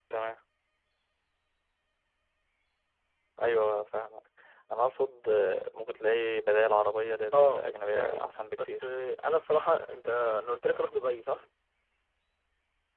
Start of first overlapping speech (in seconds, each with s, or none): 7.3 s